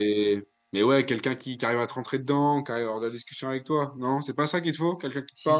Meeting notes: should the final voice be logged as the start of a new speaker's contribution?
Yes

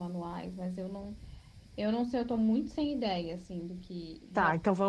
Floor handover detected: Yes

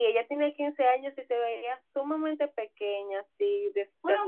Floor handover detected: Yes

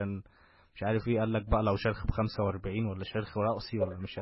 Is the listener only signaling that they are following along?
No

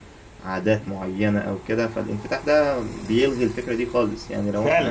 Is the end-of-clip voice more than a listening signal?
Yes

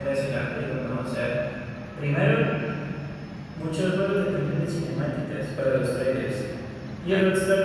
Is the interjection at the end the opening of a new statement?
No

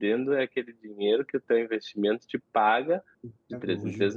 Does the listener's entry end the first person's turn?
No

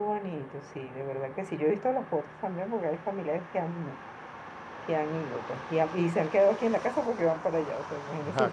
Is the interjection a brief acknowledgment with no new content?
Yes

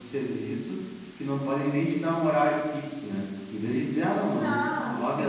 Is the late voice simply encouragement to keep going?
Yes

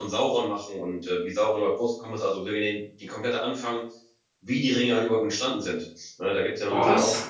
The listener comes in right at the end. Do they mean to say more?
No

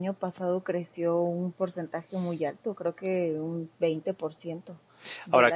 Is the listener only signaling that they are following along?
Yes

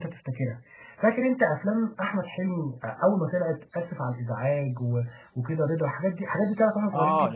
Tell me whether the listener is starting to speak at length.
Yes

